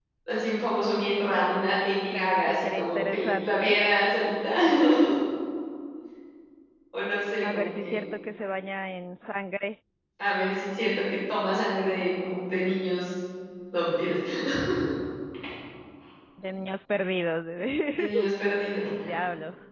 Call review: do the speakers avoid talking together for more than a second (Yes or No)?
No